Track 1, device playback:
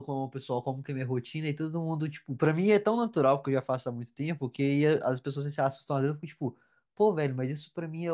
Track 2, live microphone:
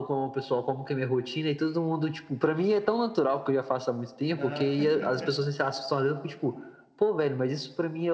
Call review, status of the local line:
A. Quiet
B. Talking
B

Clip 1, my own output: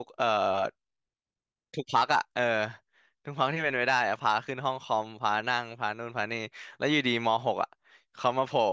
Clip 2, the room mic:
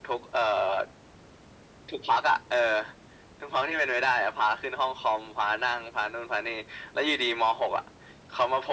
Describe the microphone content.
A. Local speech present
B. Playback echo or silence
B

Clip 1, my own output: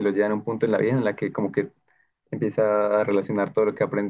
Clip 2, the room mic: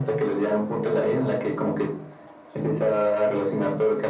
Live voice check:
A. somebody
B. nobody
B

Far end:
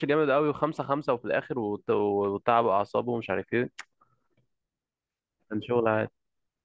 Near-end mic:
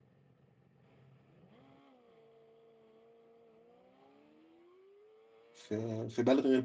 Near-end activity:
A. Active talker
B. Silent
A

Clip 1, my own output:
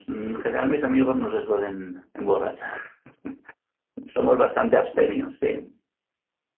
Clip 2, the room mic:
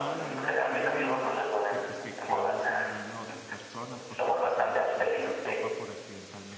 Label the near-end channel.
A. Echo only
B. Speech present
B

